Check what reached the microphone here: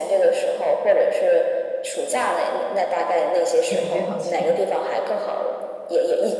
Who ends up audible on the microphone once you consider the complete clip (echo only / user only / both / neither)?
both